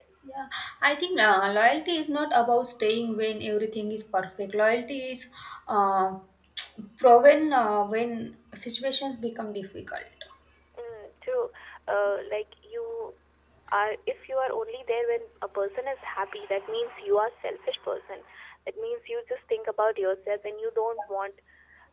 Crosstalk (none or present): none